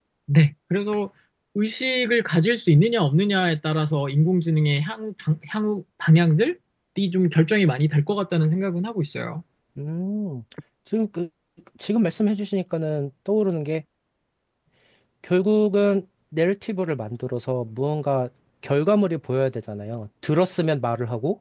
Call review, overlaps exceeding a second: none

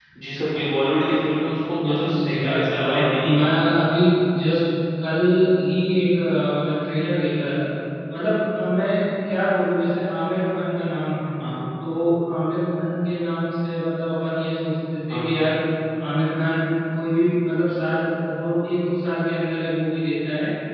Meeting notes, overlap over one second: present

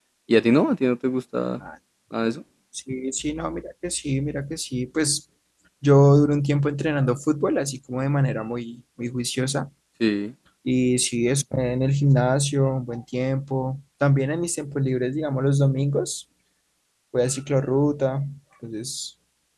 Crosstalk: none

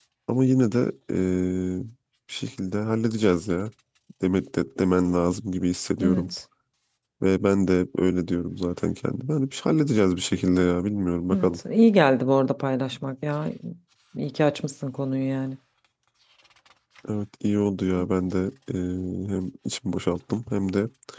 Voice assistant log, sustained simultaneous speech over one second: none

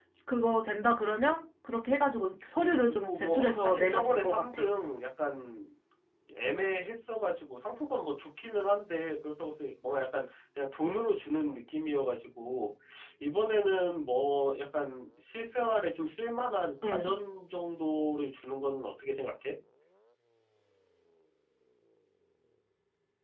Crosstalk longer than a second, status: present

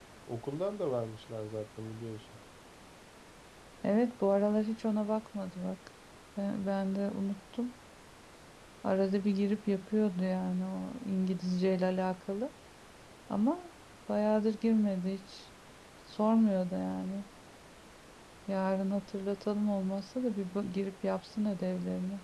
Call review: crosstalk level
none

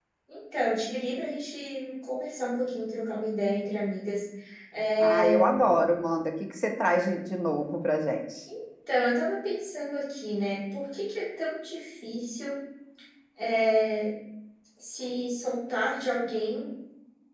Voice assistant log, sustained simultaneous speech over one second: none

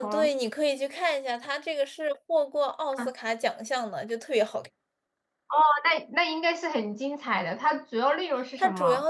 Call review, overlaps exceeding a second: none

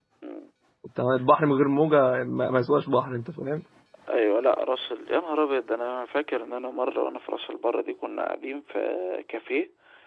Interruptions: none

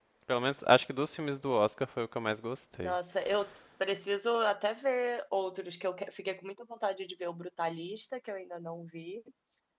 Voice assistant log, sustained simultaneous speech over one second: none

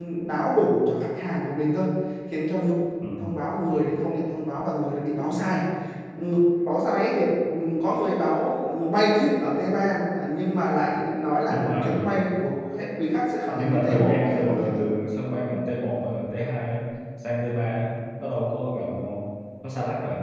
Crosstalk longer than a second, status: present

